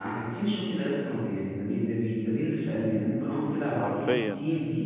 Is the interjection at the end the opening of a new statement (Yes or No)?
No